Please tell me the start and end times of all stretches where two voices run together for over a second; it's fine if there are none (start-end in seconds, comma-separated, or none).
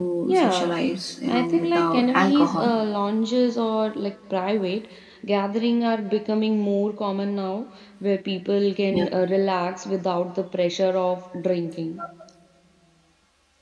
1.2-2.7